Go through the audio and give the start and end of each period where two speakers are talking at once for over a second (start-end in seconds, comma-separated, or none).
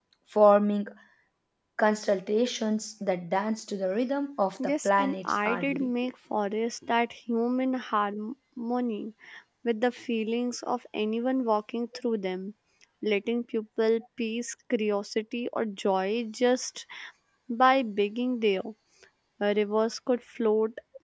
4.6-5.9